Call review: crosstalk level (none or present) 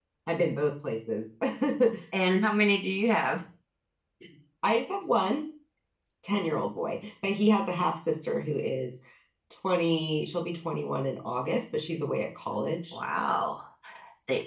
none